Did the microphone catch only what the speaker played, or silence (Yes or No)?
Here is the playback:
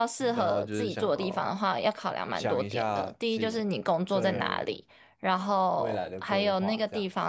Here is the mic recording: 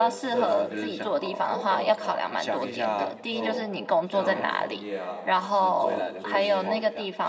No